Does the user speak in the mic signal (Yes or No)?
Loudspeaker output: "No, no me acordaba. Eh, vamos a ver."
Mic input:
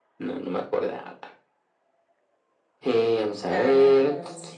Yes